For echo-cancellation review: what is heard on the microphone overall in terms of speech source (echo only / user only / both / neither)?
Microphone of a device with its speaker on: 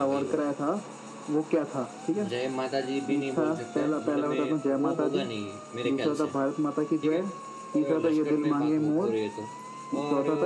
both